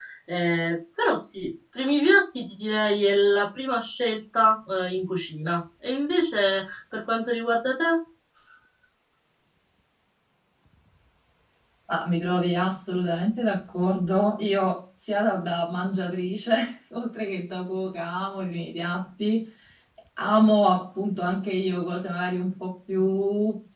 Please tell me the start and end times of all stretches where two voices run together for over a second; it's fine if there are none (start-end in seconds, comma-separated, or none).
none